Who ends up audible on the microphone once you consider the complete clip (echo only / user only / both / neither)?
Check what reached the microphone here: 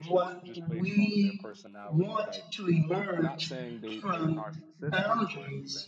both